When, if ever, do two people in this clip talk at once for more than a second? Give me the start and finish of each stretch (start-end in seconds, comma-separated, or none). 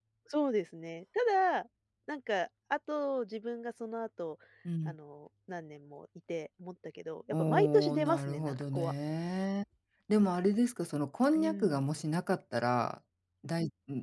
7.3-8.9